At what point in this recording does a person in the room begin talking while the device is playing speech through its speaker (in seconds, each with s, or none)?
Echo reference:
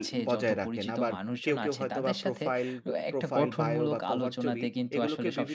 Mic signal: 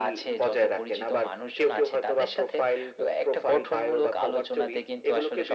none